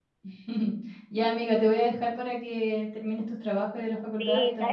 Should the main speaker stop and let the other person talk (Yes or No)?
Yes